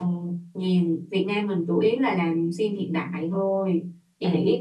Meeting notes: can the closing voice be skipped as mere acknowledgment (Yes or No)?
Yes